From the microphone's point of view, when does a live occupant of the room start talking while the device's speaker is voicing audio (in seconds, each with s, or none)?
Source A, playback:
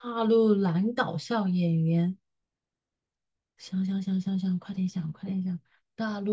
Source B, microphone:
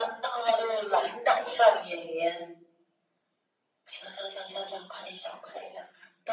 none